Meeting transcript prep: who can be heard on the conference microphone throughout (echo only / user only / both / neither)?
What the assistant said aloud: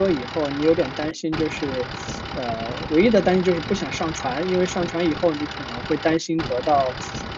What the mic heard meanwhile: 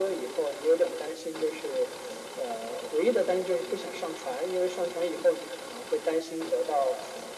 echo only